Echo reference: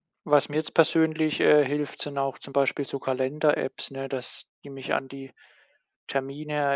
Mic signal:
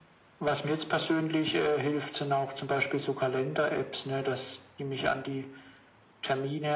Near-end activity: none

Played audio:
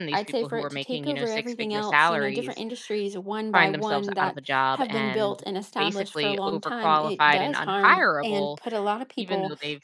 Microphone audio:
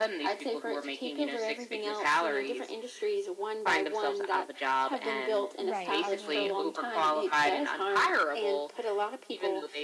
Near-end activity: present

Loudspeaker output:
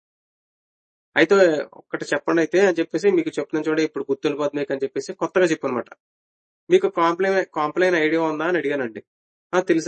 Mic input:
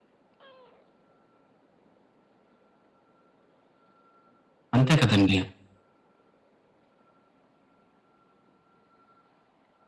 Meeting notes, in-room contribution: present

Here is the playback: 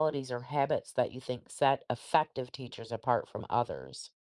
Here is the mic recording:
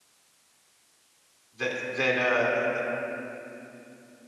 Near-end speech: present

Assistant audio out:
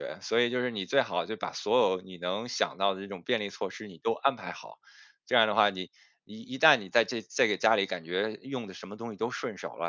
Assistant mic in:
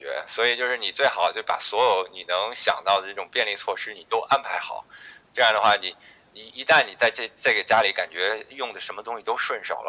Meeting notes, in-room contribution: none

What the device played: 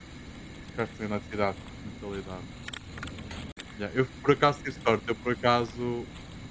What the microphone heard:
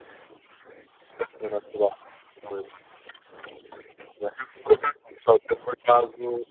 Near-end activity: none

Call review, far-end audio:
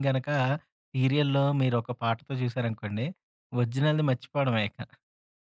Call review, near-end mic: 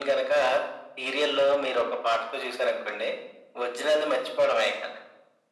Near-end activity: none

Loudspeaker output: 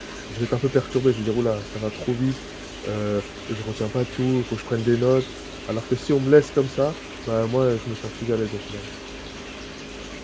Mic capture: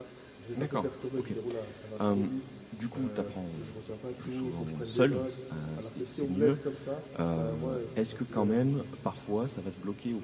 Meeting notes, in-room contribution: present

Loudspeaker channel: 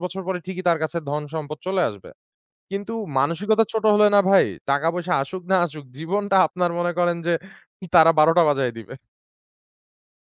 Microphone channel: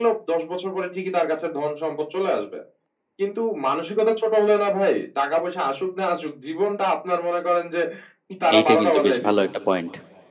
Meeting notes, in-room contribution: present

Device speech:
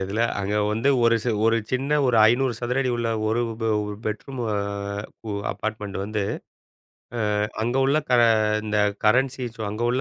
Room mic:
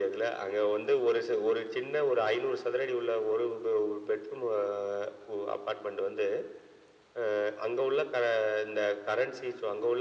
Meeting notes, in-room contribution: none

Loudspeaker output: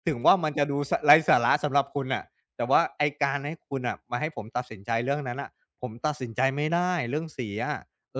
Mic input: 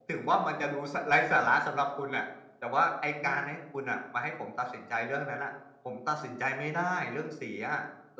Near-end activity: present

